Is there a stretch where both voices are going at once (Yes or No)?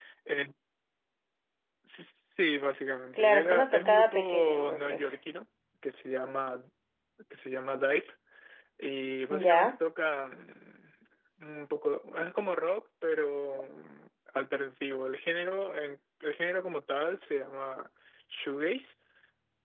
Yes